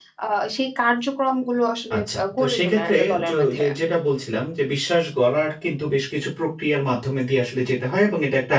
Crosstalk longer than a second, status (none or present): present